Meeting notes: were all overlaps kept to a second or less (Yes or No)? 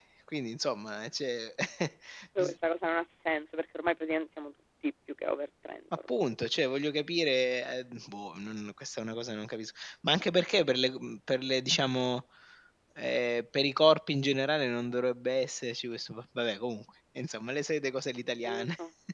Yes